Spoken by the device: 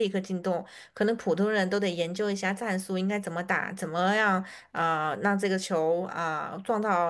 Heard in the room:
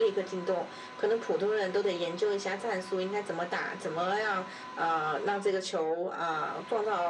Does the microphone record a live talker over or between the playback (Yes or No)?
No